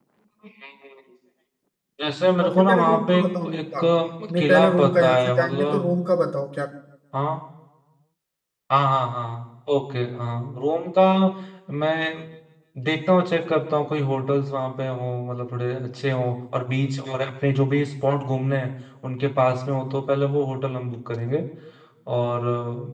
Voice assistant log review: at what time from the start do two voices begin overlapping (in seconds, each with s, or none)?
2.4 s